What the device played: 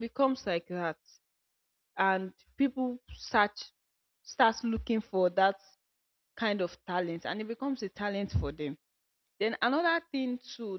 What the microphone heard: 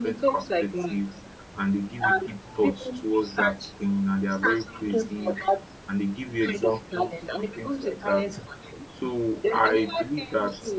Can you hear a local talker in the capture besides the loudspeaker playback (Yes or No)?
Yes